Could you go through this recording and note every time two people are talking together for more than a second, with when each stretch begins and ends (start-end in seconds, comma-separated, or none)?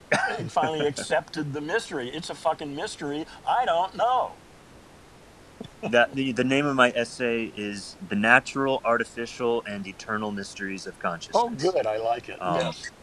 none